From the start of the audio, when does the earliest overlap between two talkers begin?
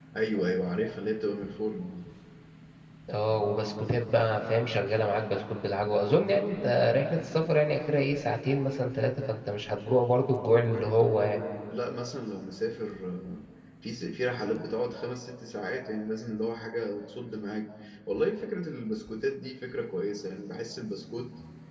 none

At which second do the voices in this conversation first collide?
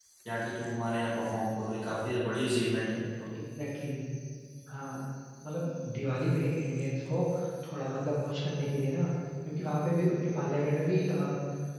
none

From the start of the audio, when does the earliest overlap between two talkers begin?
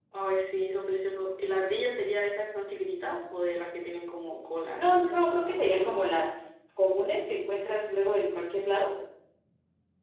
4.8 s

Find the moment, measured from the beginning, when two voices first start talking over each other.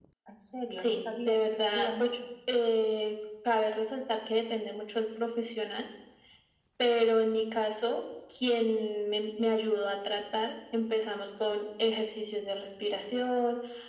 0.8 s

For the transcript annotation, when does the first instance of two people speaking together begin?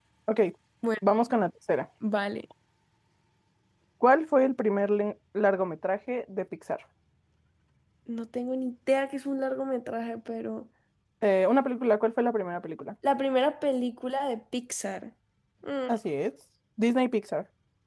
none

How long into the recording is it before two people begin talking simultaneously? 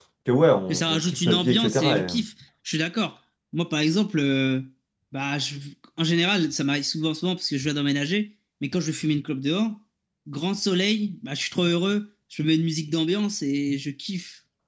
0.7 s

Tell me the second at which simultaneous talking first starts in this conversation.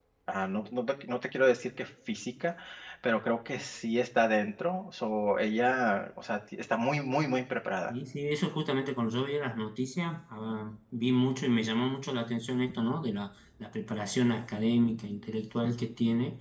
none

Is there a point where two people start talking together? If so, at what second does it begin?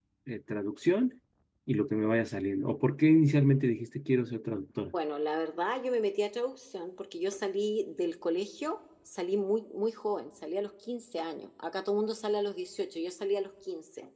none

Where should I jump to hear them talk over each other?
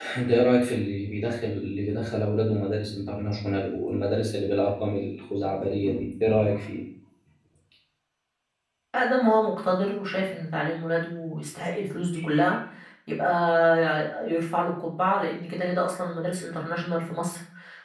none

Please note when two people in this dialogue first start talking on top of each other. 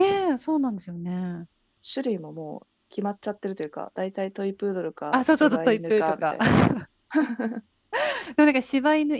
5.1 s

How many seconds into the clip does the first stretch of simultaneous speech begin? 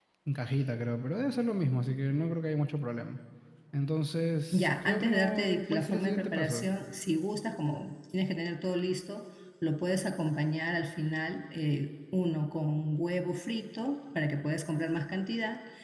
4.5 s

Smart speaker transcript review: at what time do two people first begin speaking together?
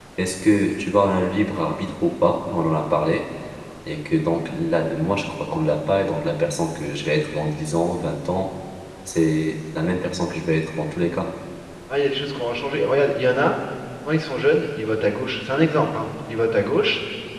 none

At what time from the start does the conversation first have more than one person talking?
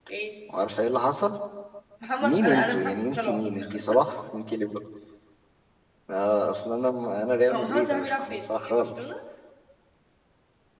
2.2 s

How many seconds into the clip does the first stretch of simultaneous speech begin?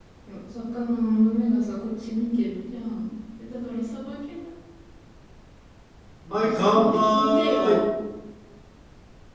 6.3 s

